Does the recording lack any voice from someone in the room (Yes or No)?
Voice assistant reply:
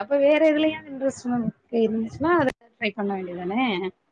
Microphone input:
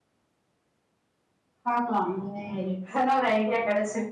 No